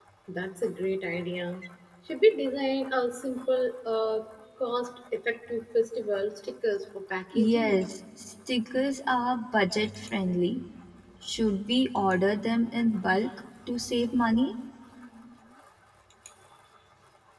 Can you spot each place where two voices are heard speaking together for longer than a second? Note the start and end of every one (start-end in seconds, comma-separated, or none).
none